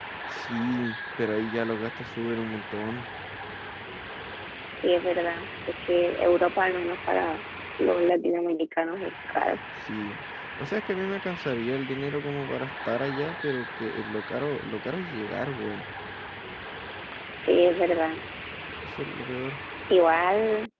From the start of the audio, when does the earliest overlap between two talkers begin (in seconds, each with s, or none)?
none